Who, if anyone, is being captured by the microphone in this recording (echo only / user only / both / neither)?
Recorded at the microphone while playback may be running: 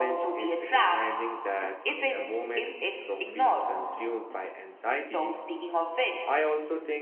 both